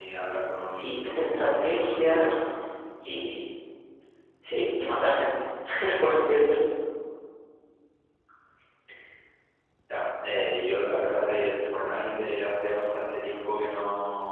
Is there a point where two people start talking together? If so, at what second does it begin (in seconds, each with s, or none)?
0.7 s